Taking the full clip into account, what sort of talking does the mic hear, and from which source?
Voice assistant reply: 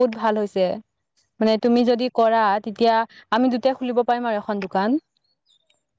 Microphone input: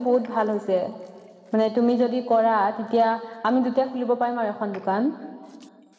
echo only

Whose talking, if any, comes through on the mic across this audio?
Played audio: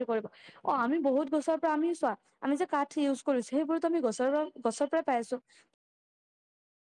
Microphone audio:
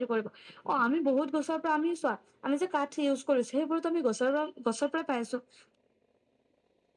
echo only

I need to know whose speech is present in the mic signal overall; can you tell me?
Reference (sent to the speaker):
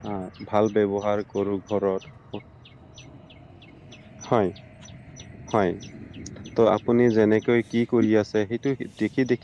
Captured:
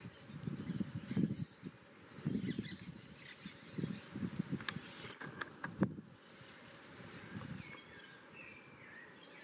neither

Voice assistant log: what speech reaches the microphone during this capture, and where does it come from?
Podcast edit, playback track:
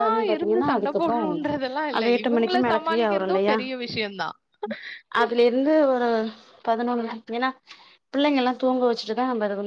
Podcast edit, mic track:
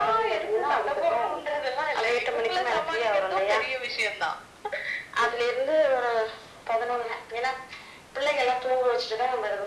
echo only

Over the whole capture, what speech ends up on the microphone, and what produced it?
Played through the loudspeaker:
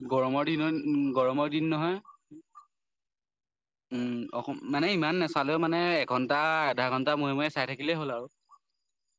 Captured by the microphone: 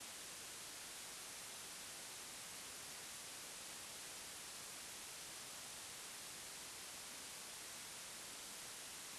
neither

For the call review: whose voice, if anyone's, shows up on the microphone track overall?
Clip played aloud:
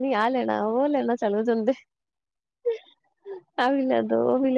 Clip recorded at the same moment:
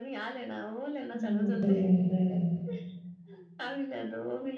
both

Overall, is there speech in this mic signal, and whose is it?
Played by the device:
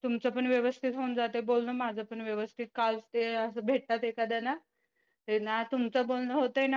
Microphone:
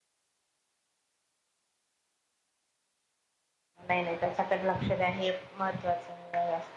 user only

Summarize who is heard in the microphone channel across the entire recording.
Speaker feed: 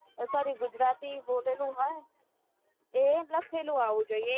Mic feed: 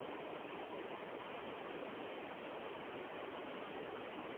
neither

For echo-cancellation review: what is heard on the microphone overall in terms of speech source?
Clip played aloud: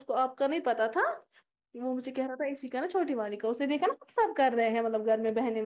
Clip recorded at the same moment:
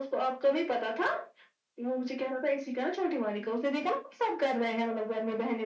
echo only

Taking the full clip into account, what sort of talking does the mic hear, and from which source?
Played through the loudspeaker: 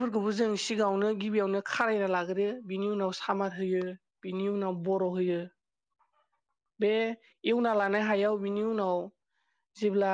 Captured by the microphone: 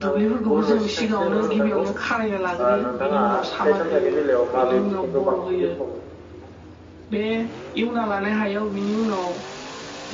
both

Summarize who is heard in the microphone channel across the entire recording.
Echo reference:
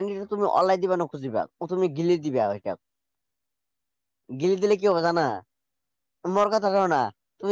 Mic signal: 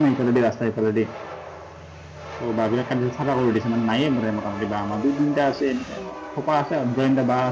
user only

